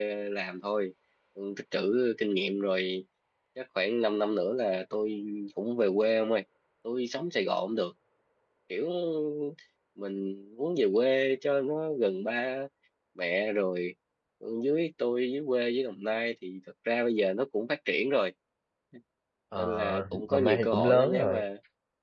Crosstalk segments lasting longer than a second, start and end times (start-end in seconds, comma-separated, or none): 19.6-21.4